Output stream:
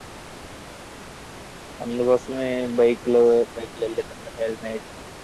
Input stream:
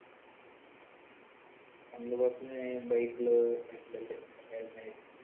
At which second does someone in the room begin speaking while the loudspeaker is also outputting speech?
none

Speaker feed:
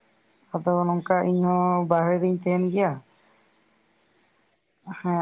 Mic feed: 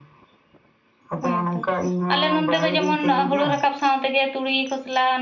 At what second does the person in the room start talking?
1.3 s

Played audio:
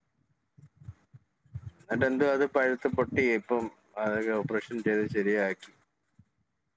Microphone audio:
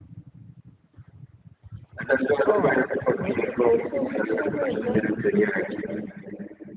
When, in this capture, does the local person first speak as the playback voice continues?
2.5 s

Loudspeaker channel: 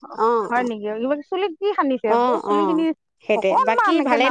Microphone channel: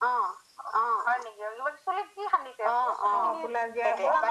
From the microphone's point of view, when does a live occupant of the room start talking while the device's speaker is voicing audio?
3.2 s

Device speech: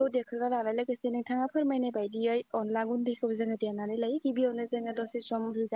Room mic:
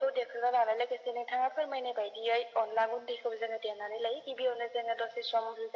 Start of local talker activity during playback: none

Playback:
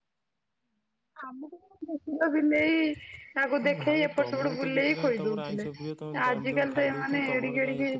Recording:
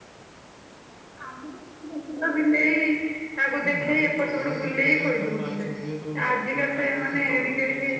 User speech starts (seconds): none

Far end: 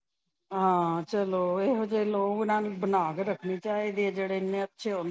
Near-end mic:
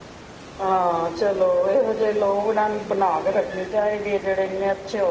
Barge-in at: none

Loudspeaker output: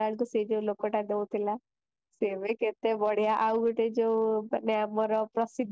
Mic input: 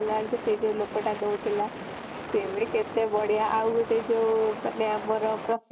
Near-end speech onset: none

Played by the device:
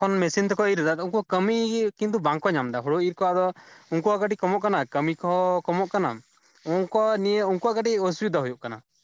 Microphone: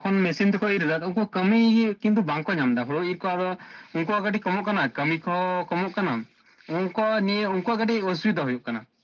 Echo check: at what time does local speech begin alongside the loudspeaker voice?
none

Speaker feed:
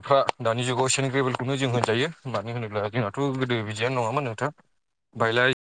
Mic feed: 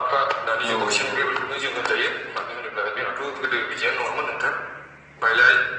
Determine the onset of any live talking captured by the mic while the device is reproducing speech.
0.7 s

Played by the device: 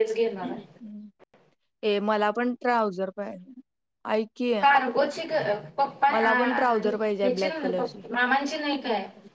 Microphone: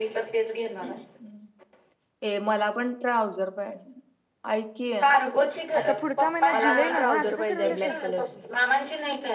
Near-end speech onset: 5.8 s

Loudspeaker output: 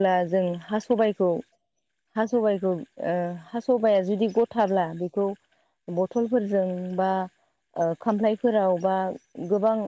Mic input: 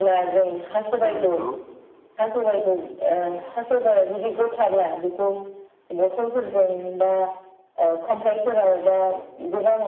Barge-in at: 1.0 s

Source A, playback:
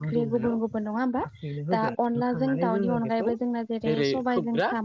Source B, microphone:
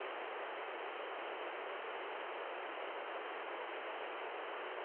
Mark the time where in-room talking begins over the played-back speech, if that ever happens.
none

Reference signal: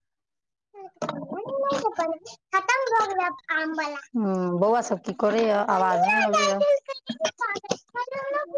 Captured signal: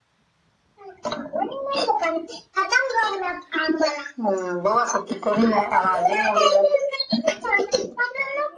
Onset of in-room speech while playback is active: none

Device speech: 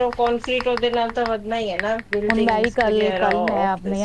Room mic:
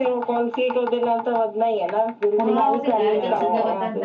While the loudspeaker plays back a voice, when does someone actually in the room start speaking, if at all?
2.4 s

